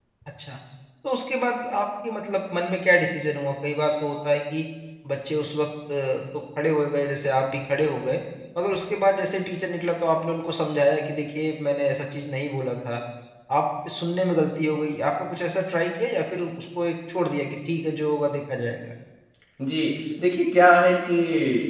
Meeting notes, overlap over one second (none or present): none